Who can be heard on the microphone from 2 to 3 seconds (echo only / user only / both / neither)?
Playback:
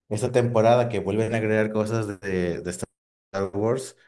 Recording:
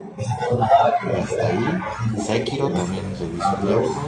both